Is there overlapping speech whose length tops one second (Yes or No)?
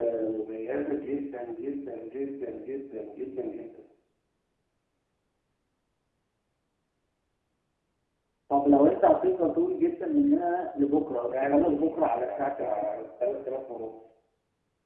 Yes